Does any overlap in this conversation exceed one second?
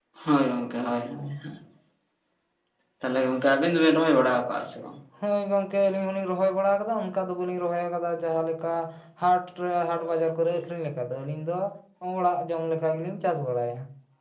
No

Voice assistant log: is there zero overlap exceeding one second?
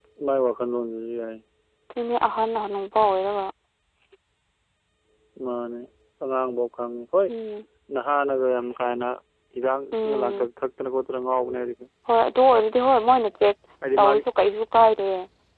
Yes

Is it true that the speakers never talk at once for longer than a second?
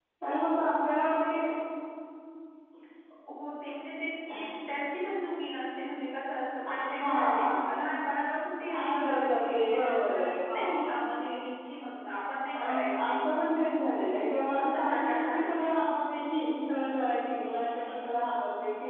No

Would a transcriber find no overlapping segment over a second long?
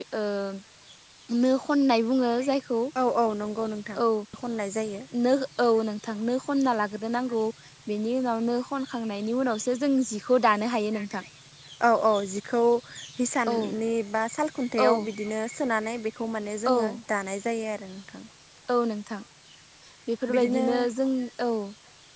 Yes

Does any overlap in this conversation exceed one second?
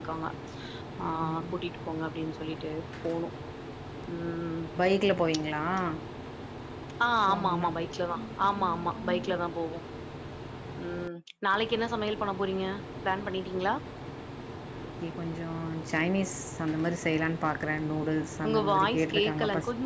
Yes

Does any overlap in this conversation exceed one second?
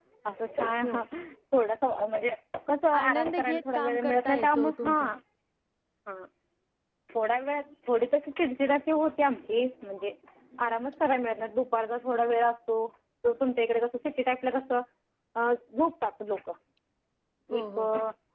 Yes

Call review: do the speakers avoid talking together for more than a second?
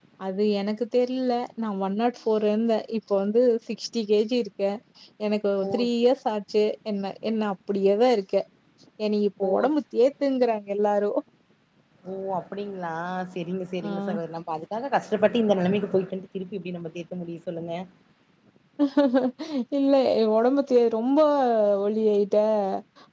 Yes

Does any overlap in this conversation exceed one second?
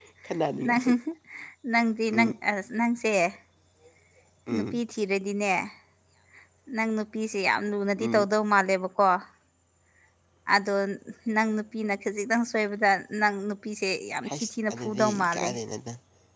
Yes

